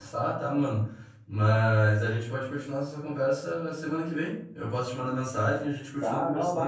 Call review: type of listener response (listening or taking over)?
taking over